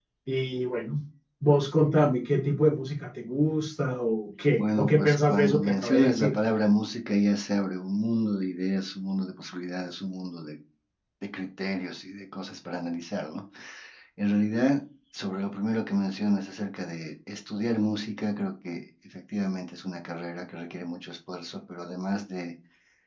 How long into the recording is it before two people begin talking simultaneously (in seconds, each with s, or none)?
4.6 s